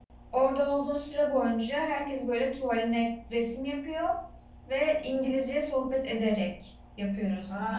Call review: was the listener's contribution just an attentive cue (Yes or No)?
No